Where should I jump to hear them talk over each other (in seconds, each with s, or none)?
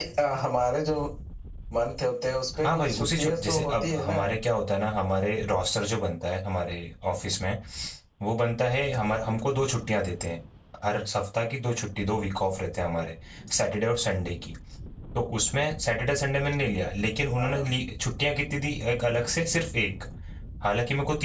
2.6 s